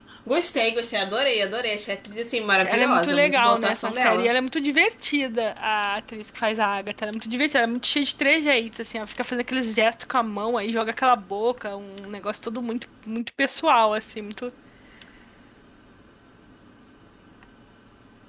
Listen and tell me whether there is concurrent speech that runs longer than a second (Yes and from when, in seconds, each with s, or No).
Yes, from 2.6 s